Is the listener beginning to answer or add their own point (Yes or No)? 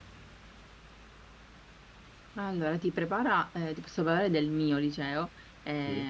No